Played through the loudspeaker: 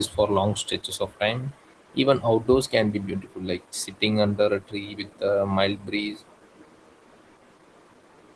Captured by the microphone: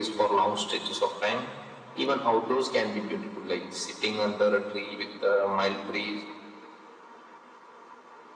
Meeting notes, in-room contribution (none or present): none